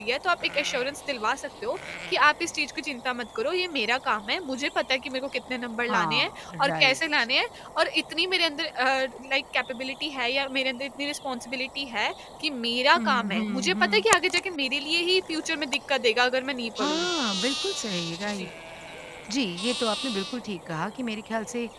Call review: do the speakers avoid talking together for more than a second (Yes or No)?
No